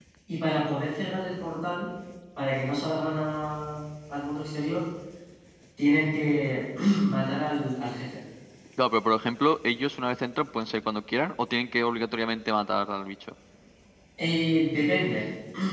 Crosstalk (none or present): none